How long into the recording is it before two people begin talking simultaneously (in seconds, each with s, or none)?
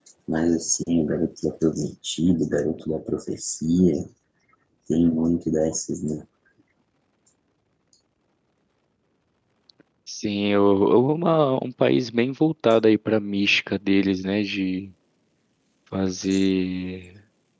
none